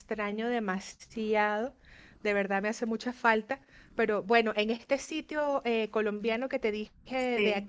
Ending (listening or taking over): listening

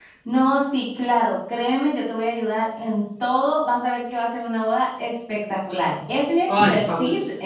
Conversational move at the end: listening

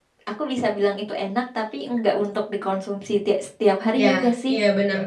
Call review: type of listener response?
taking over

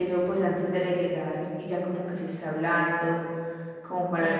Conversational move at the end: listening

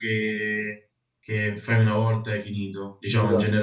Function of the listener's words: listening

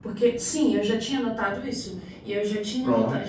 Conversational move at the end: listening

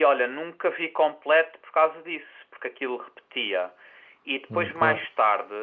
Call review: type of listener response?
listening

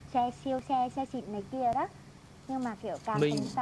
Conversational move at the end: listening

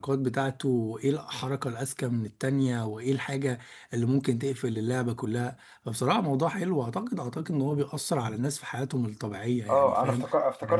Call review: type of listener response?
taking over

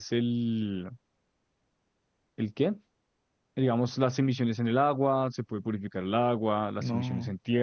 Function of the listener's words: listening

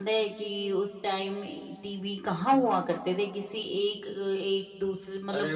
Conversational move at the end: taking over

